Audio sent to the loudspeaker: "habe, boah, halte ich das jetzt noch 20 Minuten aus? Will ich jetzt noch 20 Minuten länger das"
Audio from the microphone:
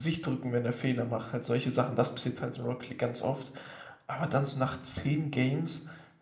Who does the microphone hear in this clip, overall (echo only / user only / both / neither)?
user only